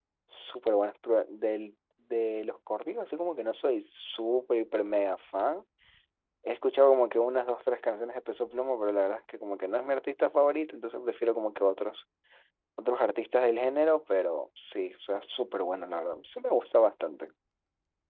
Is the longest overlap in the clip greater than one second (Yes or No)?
No